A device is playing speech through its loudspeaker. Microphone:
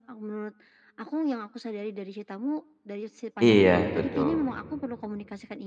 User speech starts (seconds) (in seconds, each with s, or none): 3.4 s